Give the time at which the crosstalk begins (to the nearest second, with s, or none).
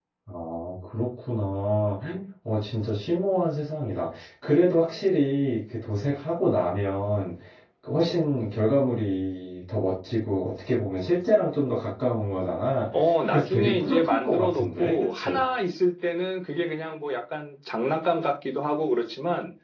13 s